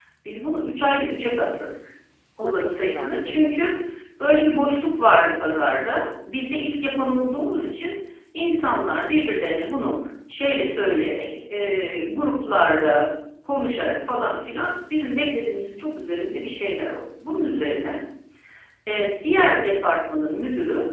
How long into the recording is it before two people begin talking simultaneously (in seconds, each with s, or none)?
2.4 s